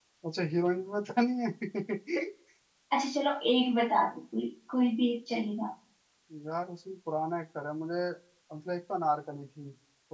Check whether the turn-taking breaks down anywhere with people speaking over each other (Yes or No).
No